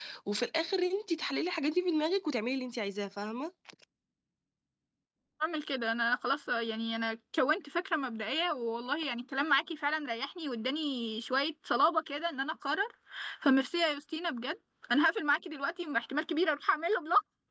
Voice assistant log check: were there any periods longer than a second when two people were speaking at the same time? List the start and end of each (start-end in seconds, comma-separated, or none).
none